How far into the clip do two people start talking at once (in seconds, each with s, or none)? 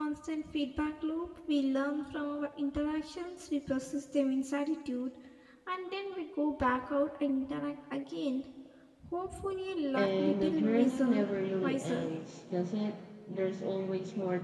9.9 s